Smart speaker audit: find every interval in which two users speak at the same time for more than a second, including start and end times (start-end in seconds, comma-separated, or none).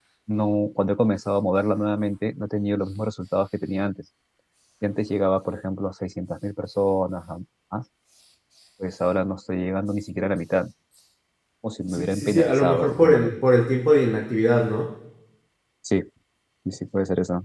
11.9-13.3